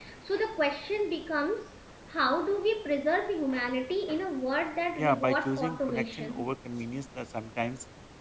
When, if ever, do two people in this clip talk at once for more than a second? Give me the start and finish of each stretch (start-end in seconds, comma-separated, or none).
5.0-6.5